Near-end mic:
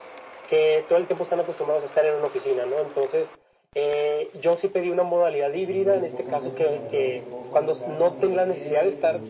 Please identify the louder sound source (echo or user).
echo